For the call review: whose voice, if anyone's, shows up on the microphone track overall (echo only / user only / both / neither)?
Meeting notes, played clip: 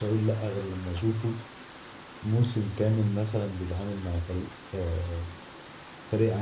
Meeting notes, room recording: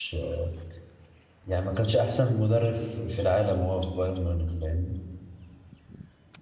user only